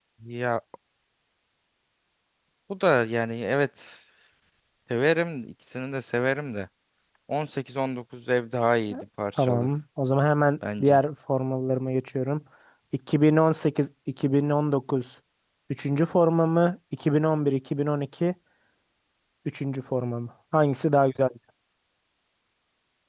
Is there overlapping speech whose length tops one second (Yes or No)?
No